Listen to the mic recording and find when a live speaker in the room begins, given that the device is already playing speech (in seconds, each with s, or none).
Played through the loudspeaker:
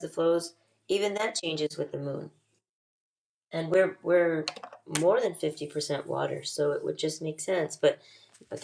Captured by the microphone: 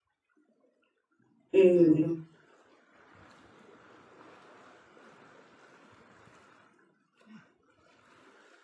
1.5 s